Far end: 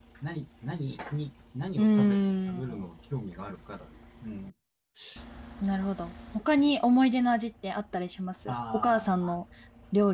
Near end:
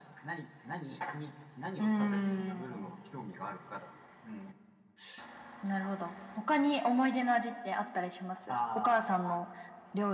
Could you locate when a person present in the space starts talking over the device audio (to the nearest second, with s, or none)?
none